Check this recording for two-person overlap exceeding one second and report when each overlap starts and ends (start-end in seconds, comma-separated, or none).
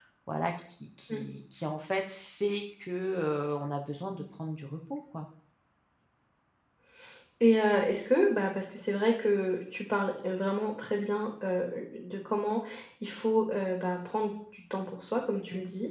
none